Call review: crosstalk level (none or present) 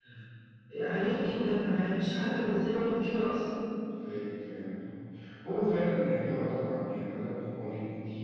none